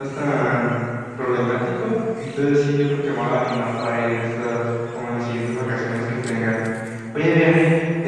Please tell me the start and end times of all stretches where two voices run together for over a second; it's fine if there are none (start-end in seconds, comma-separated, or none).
none